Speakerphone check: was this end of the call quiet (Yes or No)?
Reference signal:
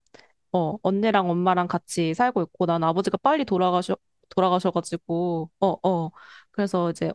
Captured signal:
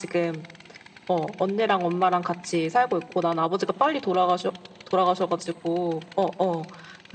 Yes